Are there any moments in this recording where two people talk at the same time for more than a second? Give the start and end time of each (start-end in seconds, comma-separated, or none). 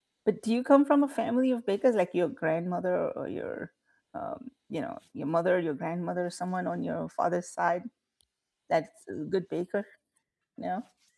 none